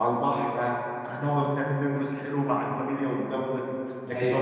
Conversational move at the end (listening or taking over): listening